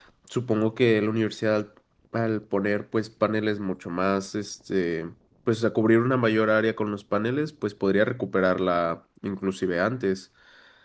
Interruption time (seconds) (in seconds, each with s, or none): none